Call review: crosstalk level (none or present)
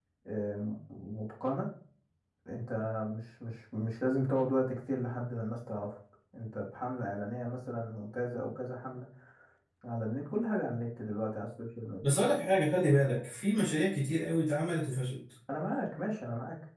none